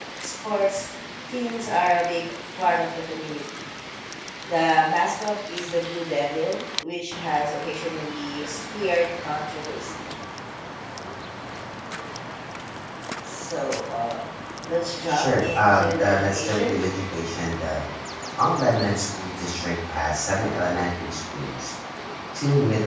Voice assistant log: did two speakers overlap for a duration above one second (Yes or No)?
Yes